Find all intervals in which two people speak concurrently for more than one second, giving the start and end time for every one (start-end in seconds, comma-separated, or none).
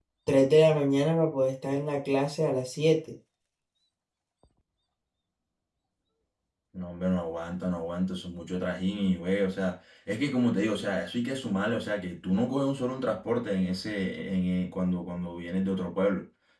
none